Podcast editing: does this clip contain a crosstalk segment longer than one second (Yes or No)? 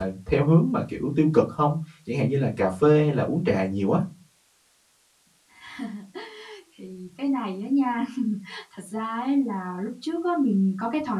No